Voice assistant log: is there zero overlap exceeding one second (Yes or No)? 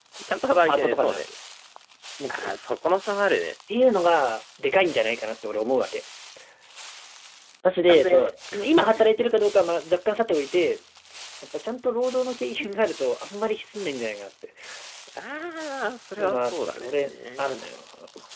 No